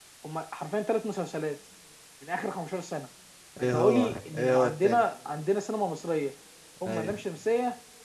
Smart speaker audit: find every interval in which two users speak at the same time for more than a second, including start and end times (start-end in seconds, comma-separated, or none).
3.6-5.0